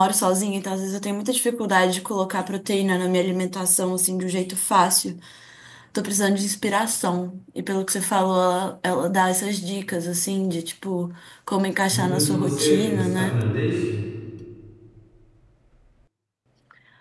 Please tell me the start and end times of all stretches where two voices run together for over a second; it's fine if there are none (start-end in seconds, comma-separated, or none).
11.9-13.4